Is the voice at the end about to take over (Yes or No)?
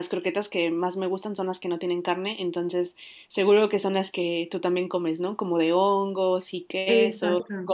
Yes